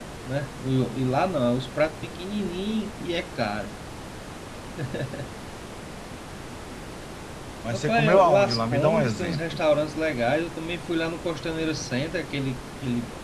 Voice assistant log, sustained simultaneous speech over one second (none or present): present